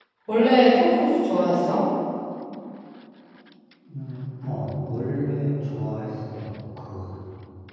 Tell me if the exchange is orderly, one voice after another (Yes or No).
Yes